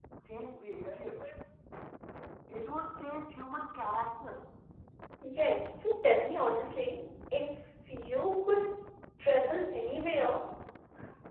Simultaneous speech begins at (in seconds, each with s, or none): none